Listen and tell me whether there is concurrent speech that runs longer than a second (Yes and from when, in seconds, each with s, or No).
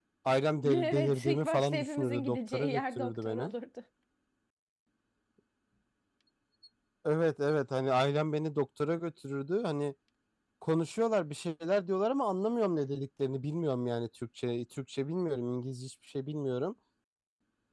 Yes, from 0.7 s